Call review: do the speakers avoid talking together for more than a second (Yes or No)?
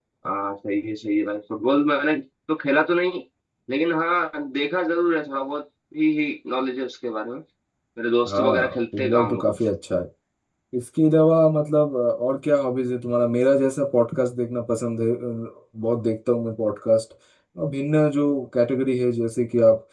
No